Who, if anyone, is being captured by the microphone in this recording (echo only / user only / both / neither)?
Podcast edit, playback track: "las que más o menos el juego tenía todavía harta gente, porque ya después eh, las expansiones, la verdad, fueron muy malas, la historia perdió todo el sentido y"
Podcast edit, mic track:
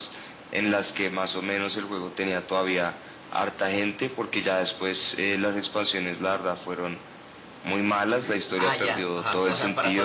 both